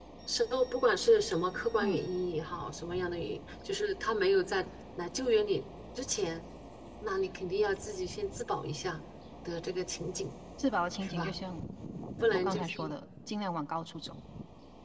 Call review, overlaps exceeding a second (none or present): none